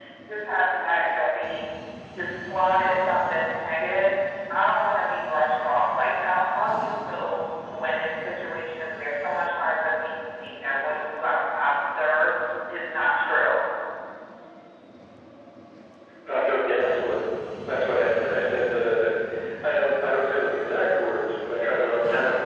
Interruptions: none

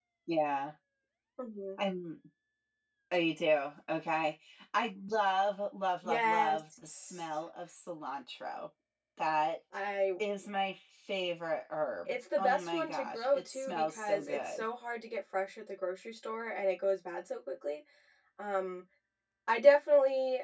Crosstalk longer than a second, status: present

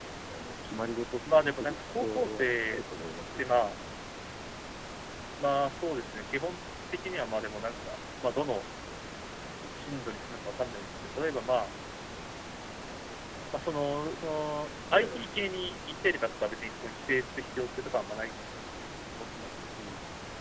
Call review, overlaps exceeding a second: present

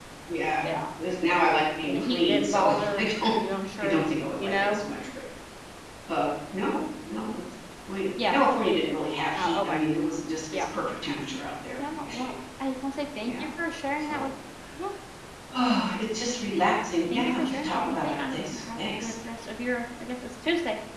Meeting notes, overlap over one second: present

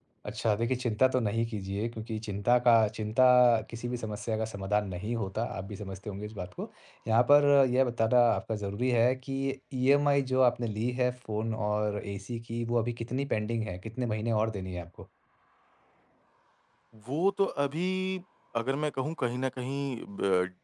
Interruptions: none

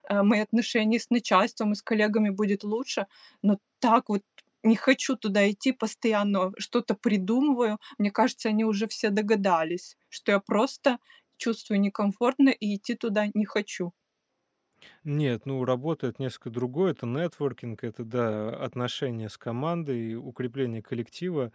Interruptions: none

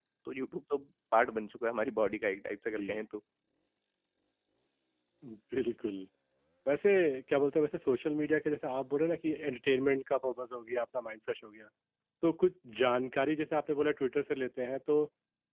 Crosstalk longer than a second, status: none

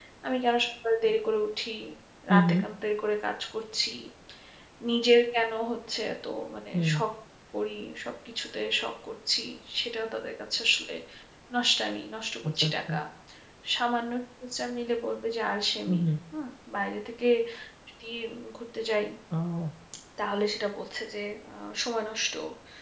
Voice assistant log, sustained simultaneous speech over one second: none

